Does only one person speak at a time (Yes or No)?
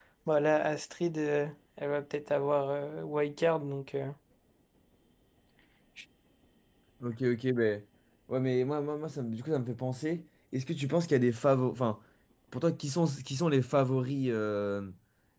Yes